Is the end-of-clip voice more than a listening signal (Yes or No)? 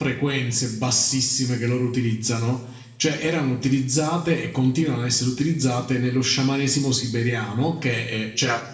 No